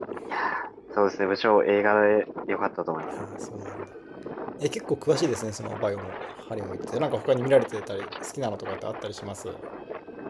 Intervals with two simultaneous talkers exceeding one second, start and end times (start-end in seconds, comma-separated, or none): none